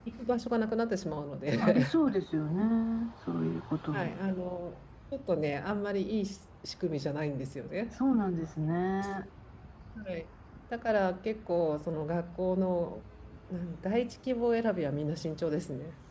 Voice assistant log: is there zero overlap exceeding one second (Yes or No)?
Yes